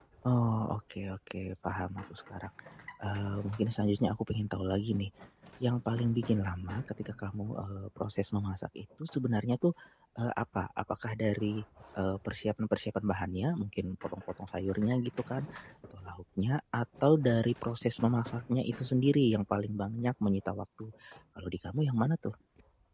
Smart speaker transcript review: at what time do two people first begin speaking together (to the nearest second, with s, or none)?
none